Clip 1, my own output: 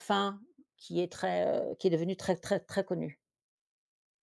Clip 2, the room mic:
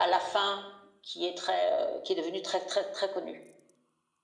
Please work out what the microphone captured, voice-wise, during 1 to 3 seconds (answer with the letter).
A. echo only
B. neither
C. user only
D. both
A